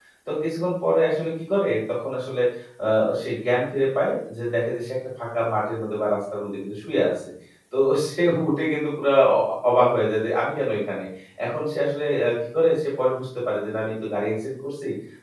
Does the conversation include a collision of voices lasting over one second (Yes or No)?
No